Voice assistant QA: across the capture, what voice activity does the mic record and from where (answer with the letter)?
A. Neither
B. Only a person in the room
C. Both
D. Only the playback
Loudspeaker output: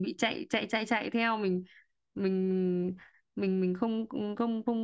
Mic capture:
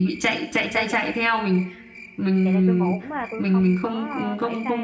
C